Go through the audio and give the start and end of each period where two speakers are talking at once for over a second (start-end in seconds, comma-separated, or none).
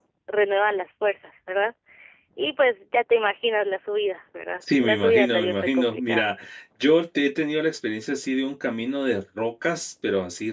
4.8-6.3